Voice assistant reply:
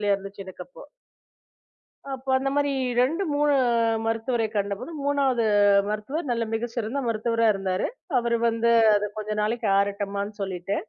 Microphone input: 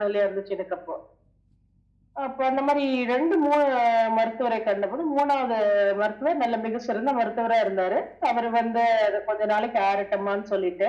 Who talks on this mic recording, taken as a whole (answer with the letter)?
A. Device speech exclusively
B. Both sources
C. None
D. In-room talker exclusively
A